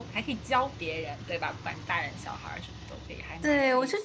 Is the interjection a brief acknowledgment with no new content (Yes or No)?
No